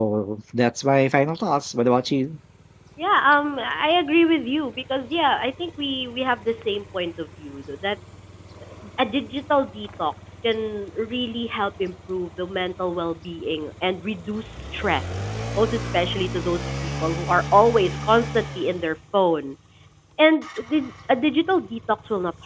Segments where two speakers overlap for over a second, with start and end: none

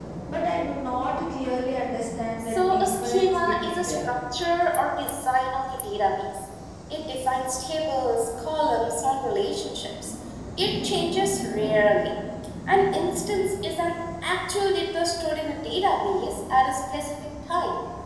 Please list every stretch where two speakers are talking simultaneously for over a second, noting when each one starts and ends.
2.4-3.9

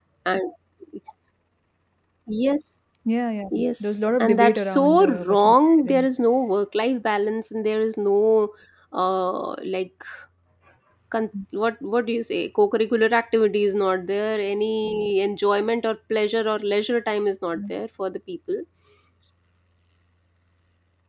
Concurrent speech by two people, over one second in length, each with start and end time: 3.6-6.1

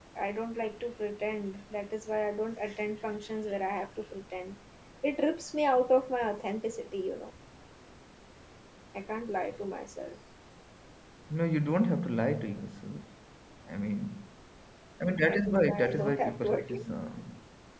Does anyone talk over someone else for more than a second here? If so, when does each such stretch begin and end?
15.2-16.9

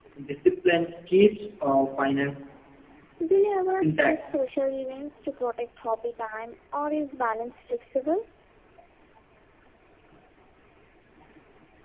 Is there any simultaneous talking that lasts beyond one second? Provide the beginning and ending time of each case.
none

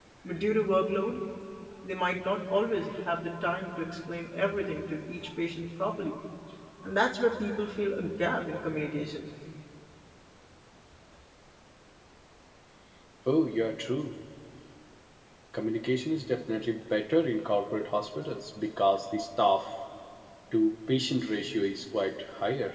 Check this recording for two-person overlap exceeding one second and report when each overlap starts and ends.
none

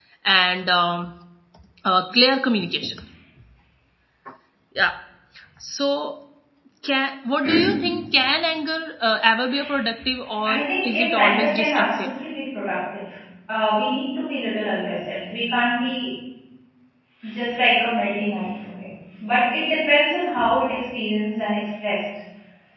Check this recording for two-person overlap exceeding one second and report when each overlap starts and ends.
10.4-12.1

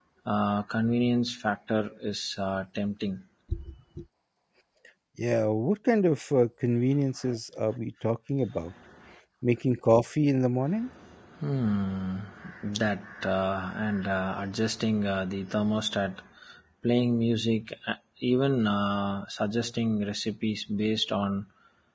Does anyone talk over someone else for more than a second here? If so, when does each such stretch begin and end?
none

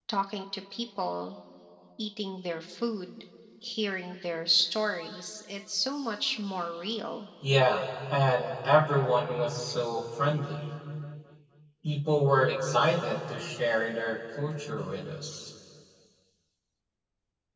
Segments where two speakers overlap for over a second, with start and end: none

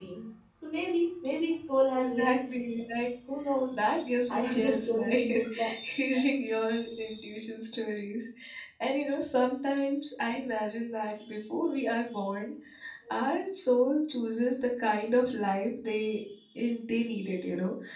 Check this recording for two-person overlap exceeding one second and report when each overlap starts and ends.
4.3-5.7

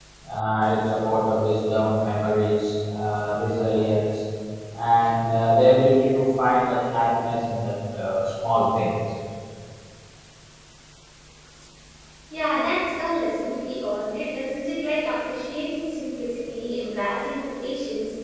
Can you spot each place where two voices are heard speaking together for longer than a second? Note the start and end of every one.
none

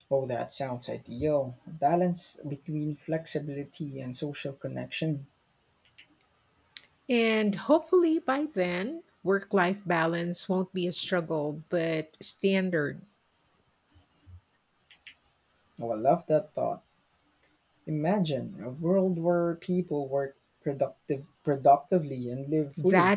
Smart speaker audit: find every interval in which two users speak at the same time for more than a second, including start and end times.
none

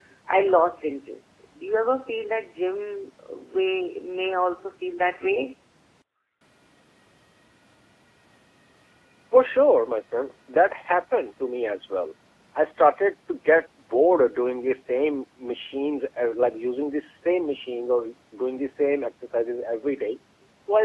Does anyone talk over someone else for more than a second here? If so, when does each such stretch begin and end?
none

